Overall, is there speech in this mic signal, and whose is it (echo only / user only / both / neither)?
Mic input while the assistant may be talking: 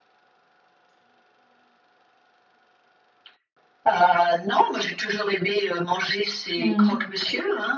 both